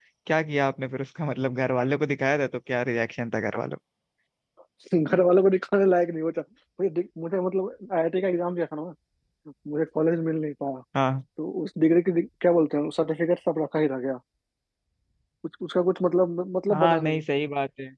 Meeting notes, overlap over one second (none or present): none